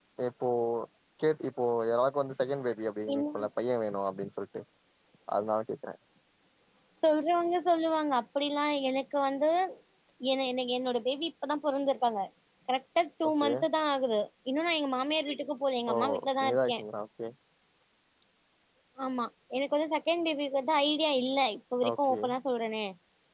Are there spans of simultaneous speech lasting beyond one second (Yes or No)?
No